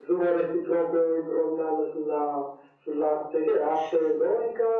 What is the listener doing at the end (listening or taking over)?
listening